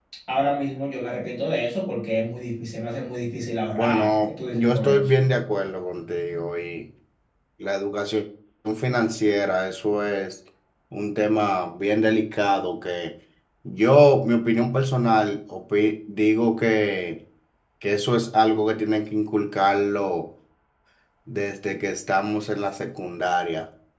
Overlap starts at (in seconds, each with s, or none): 3.8 s